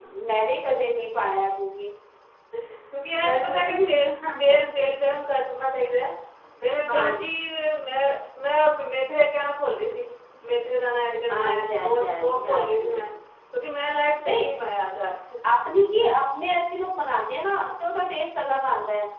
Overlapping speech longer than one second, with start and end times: 3.2-4.7, 11.3-12.9

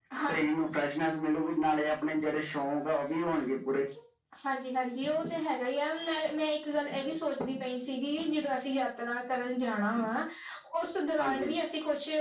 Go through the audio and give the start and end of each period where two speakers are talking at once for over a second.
none

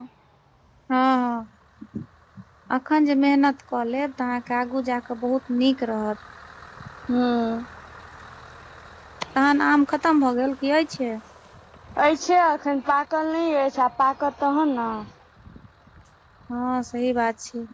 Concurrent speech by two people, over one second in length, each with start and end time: none

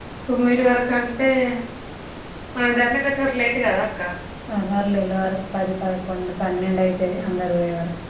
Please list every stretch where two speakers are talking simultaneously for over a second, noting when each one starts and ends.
none

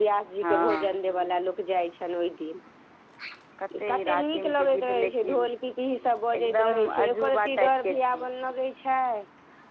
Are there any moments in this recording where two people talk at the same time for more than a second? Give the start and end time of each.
4.0-5.5, 6.3-8.3

